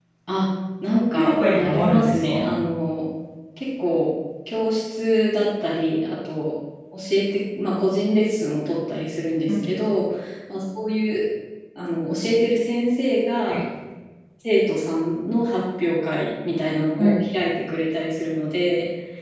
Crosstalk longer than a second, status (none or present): present